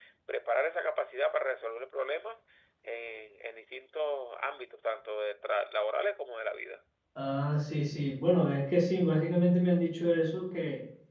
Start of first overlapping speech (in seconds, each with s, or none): none